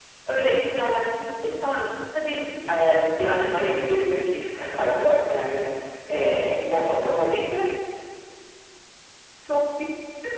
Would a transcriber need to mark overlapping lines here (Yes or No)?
Yes